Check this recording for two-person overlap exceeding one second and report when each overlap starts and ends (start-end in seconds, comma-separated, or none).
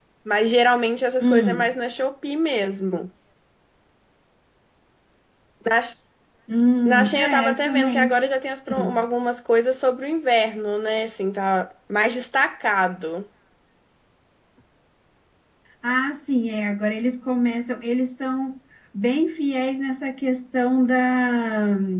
6.8-8.2